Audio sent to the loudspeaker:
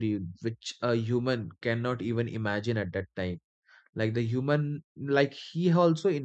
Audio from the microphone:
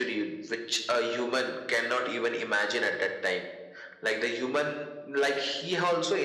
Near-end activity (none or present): none